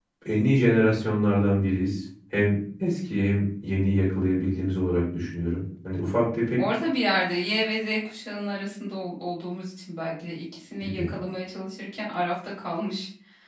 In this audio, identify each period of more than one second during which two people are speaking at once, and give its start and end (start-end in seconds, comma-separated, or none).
none